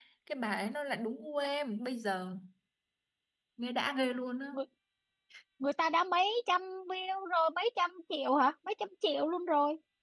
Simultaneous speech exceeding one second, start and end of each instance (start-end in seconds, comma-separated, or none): none